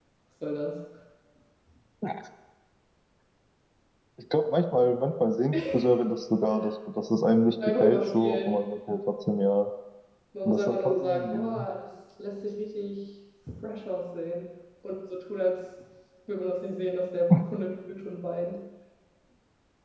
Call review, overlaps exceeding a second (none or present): present